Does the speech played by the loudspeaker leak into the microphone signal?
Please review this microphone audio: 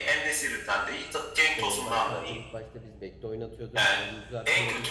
Yes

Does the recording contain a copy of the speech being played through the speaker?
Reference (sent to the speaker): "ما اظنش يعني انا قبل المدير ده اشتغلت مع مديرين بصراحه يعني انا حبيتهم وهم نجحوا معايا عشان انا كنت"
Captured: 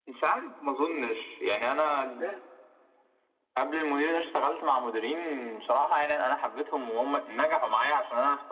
Yes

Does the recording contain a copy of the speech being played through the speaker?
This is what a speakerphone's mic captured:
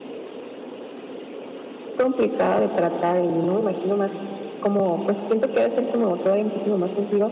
No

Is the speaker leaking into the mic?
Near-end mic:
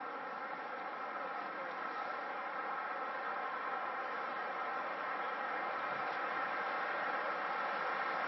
No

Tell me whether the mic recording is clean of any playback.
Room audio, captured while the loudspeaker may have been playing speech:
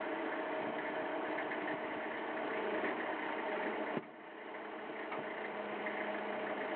Yes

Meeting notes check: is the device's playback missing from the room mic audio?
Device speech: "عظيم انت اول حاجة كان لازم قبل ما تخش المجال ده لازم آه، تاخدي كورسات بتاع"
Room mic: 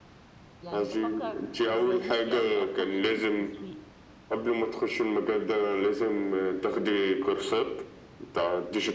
No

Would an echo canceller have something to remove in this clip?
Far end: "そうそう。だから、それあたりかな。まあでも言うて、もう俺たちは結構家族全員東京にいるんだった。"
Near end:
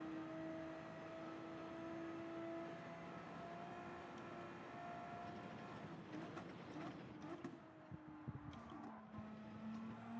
No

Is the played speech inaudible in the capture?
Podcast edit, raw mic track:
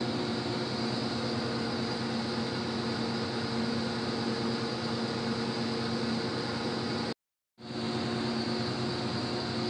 Yes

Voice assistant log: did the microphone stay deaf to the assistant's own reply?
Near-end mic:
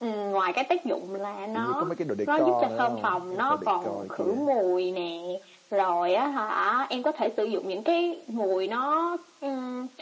No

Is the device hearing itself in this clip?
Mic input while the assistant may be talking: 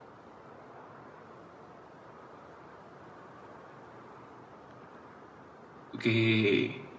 No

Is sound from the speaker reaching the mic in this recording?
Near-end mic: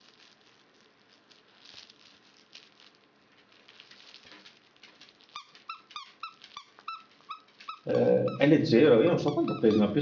No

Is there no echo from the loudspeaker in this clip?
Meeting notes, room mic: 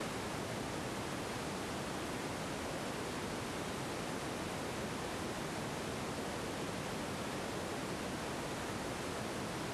Yes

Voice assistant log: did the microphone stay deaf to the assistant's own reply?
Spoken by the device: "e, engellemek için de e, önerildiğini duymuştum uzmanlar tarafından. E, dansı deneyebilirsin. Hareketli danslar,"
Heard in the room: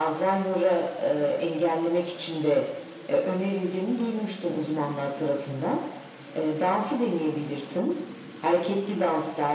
No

